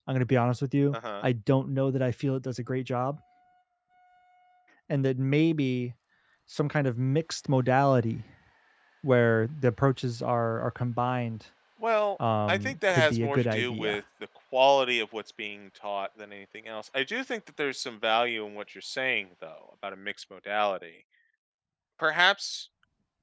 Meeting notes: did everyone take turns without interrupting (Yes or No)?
No